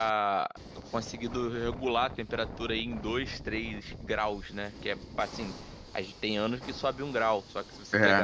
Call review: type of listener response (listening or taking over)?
listening